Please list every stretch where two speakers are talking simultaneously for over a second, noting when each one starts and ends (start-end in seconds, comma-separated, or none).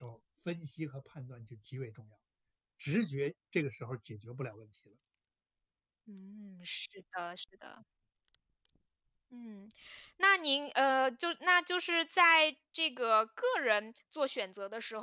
none